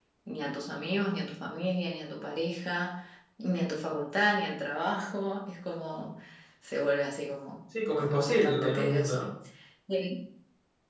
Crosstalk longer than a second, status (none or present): present